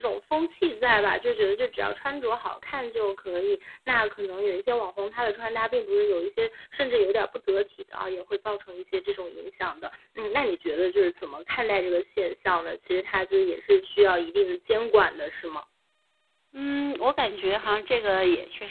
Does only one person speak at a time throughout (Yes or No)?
Yes